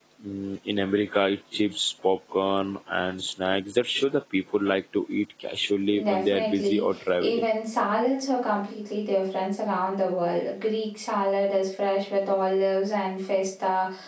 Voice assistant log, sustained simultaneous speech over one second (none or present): present